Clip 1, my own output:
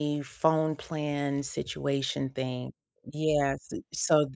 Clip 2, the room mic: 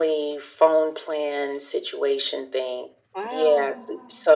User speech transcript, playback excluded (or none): Wow.